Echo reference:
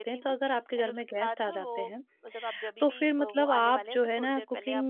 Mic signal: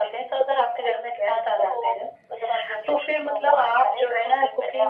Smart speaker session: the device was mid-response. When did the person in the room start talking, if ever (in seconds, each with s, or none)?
none